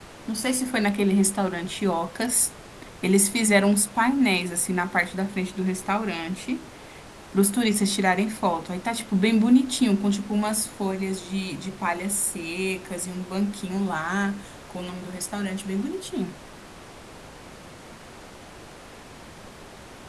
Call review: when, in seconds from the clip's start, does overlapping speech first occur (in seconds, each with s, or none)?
none